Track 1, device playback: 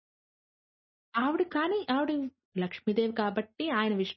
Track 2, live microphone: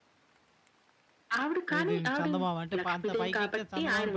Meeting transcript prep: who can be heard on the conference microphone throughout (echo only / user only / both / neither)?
both